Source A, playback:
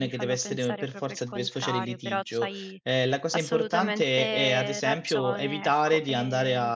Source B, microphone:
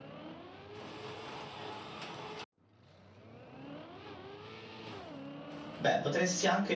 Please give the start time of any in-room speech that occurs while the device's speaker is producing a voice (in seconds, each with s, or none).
5.8 s